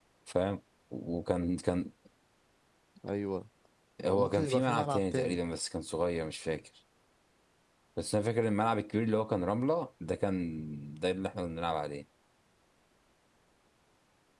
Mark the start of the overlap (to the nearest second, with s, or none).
4 s